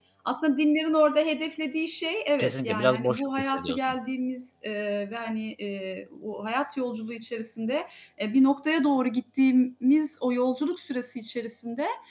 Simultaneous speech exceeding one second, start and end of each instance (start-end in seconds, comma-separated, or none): 2.4-4.0